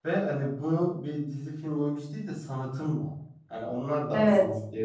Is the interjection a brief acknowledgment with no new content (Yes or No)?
Yes